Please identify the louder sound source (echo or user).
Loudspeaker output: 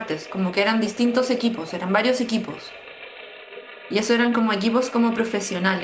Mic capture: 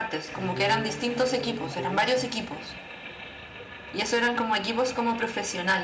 echo